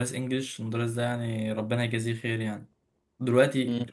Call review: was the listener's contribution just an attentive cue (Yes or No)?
Yes